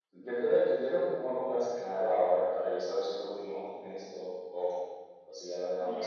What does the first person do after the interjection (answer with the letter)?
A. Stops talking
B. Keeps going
A